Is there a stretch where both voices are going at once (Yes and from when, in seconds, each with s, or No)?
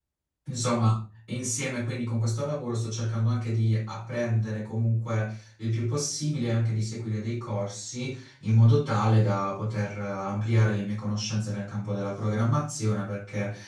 No